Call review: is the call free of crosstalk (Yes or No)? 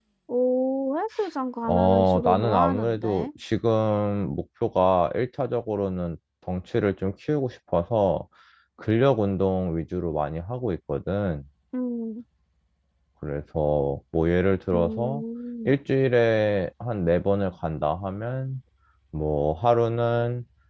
No